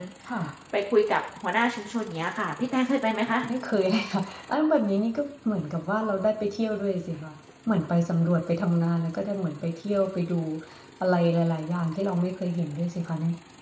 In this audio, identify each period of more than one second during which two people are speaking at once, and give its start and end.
none

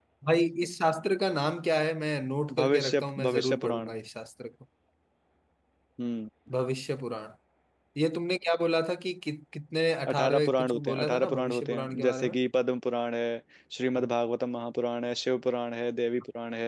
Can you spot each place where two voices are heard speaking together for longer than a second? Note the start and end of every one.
2.6-3.9, 10.1-12.3

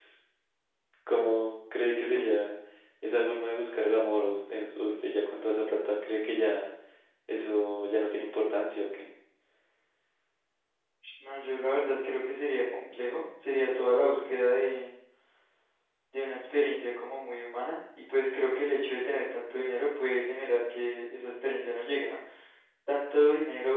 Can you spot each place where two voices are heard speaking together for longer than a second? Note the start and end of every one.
none

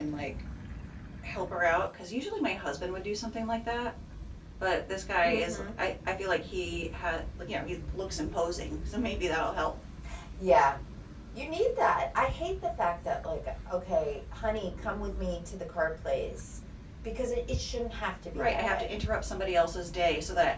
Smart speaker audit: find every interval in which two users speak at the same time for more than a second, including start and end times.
none

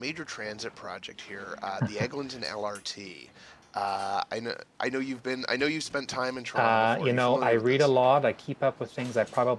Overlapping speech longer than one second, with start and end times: 6.5-7.9

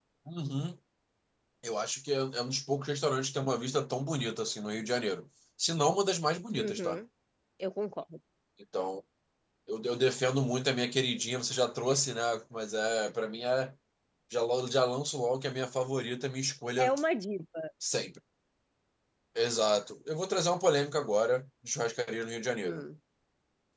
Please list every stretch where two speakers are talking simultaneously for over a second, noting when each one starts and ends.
none

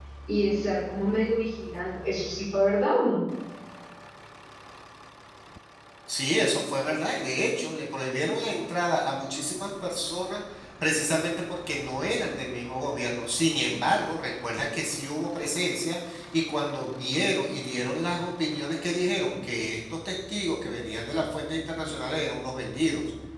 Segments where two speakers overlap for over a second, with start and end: none

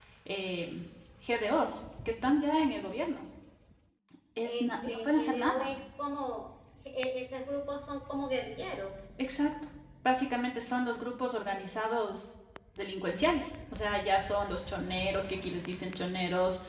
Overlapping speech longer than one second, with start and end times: 4.4-5.7

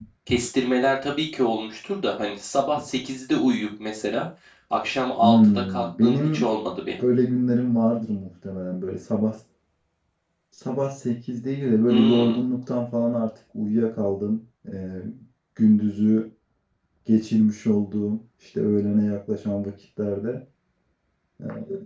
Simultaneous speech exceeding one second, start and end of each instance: 5.2-6.4

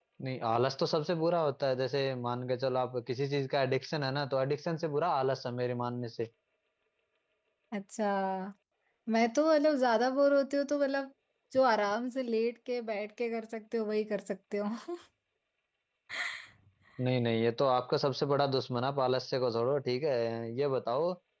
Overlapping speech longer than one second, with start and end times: none

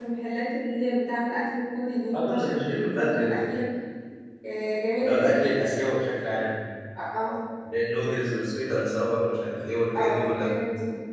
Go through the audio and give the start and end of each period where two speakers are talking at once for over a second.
2.1-3.6

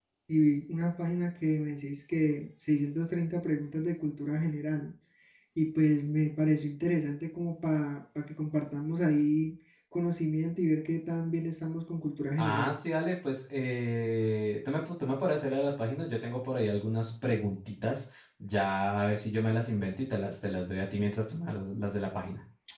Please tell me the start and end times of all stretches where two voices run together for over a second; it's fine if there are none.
none

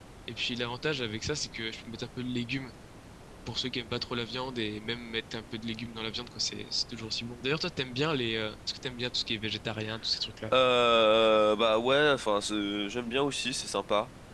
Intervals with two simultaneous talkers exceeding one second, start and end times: none

